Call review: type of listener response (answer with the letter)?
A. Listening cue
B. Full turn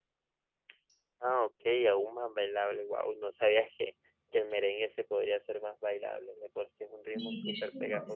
B